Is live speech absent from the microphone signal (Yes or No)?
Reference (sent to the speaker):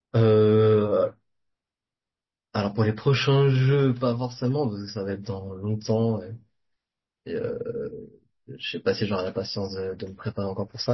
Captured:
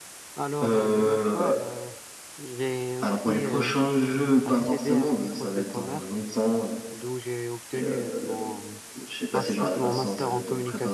No